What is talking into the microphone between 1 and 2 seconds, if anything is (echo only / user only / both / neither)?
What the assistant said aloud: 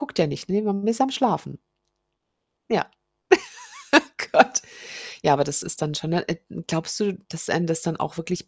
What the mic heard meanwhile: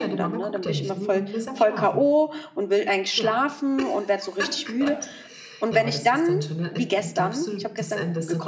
both